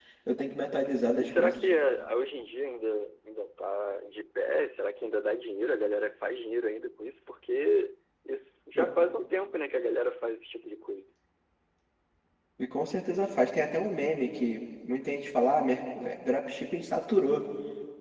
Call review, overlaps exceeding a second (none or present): none